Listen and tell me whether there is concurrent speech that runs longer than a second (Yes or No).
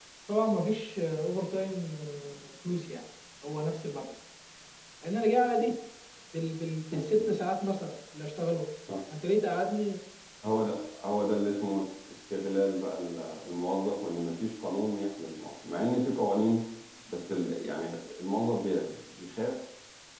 No